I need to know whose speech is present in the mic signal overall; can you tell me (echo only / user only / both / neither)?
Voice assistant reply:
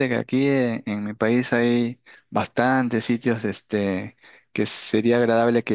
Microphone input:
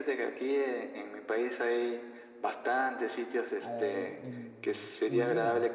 both